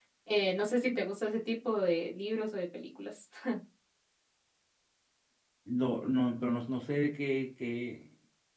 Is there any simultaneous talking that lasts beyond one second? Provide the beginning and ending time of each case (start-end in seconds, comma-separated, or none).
none